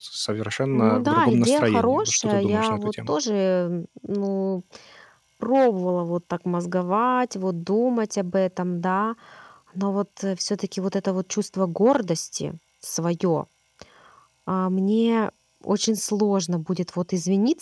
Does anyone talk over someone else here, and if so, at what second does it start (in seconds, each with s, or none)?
0.7 s